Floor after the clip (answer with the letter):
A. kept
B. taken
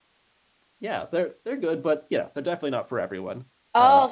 B